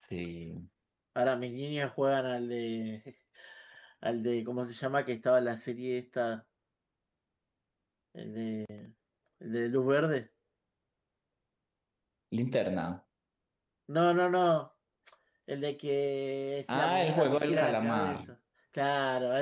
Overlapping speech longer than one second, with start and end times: 16.7-18.2

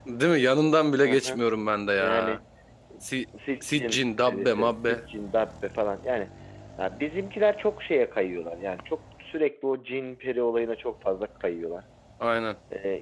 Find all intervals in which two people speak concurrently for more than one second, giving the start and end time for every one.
3.6-5.0

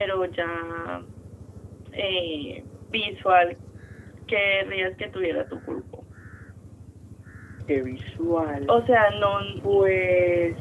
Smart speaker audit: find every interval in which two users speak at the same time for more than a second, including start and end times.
none

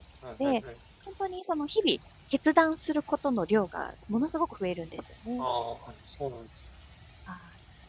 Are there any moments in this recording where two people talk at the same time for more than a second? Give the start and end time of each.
none

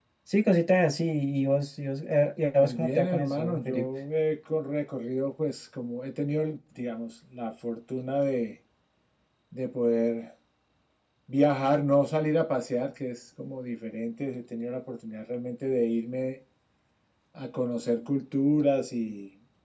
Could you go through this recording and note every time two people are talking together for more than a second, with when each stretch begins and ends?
2.6-3.9

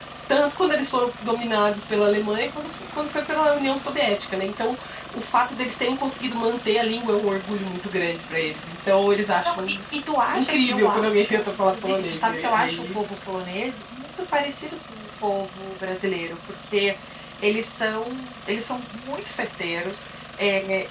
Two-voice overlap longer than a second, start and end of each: 10.3-13.0

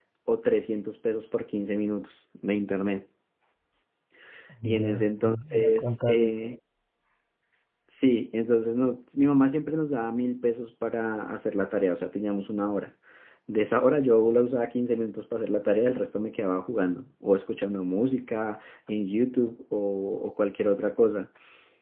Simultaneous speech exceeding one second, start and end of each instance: 4.8-6.3

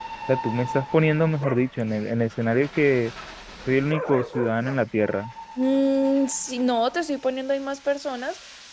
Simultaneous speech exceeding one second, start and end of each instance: none

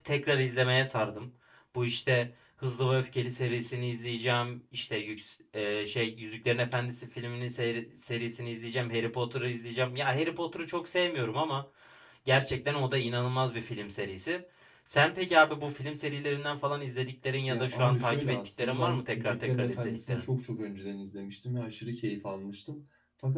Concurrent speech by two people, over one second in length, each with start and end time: 17.5-20.2

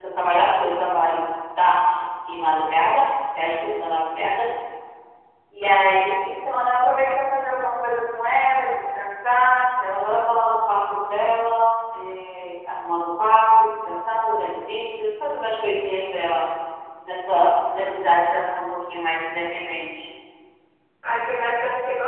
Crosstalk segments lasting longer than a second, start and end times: none

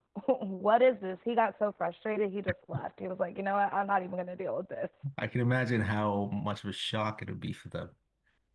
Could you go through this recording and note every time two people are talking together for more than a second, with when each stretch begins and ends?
none

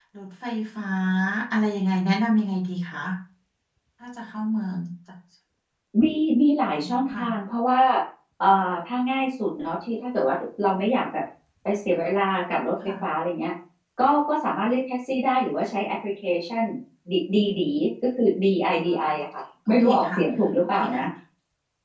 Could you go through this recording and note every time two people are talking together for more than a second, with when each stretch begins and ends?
none

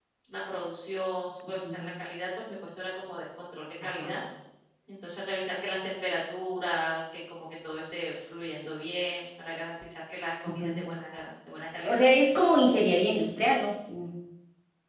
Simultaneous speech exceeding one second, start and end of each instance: none

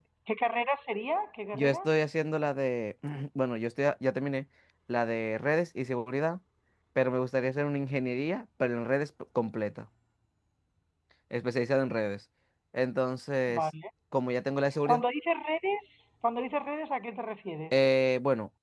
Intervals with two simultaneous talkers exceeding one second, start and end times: none

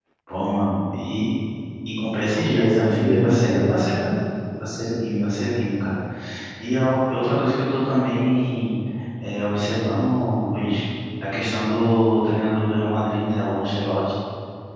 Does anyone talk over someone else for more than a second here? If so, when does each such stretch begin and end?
2.1-3.6

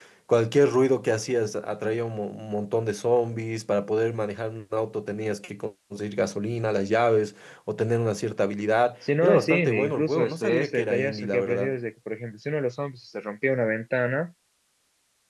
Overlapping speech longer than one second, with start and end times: 9.2-11.7

